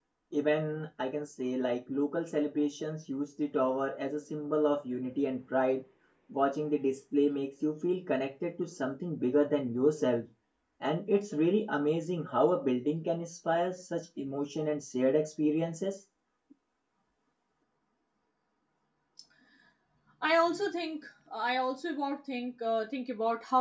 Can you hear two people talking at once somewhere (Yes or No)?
No